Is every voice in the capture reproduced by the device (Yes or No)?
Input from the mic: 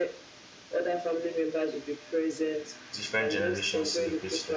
No